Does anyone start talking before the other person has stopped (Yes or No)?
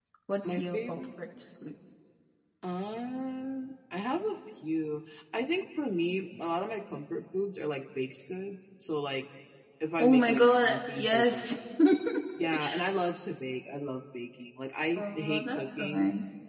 Yes